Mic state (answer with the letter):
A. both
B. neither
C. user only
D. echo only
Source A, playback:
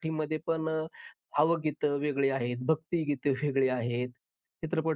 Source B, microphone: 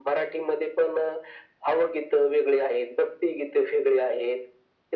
D